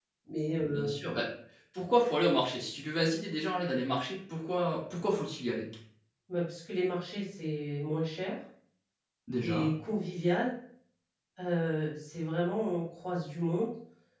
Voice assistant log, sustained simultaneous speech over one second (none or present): none